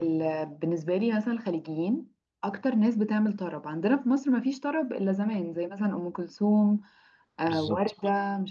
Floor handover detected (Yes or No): No